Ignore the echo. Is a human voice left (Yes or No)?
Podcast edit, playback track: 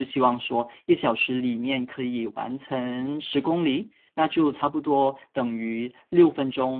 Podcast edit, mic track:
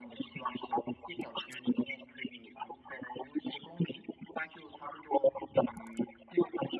No